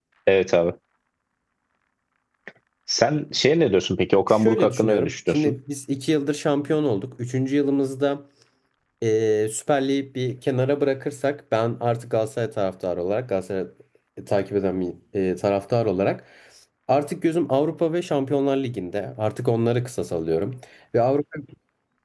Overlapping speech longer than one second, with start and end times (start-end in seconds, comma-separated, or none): 4.3-5.5